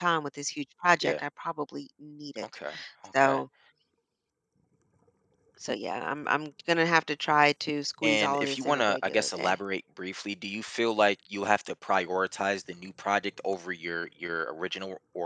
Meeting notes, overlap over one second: present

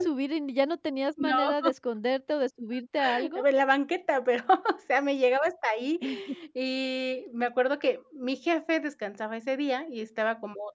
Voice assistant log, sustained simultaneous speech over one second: none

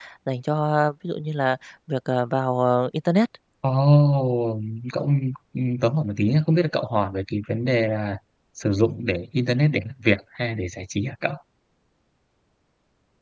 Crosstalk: none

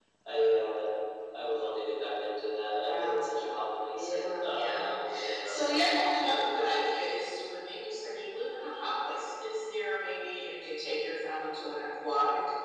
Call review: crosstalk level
present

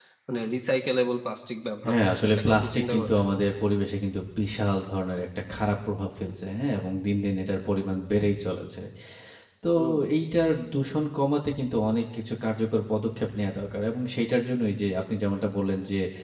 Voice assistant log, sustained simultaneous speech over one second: present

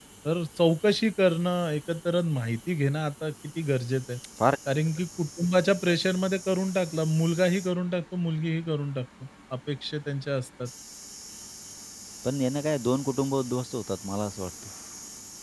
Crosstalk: none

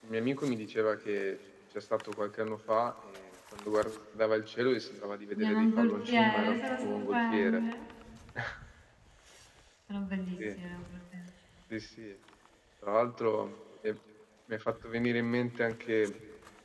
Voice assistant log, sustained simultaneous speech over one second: present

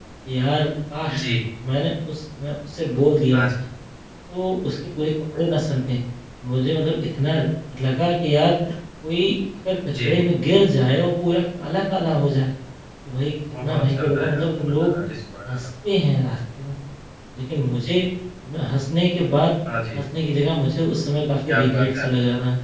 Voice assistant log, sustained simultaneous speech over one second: present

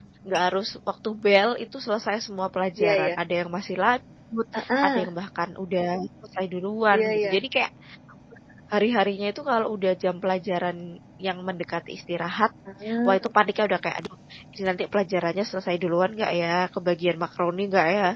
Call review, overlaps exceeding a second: none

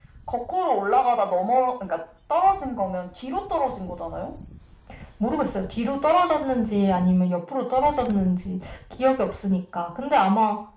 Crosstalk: none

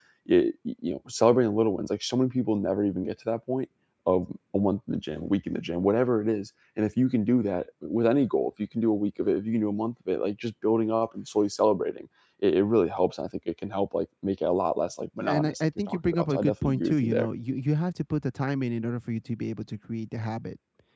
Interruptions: present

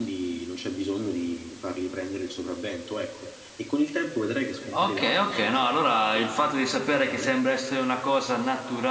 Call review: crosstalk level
present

